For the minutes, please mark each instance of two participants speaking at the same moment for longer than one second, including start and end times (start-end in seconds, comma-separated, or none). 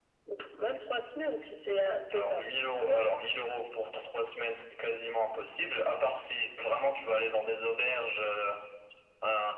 none